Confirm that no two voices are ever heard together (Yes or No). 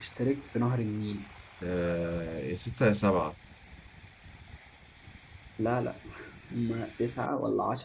Yes